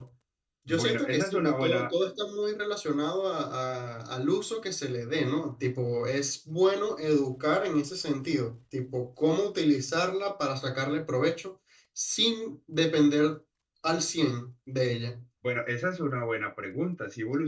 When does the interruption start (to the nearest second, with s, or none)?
1 s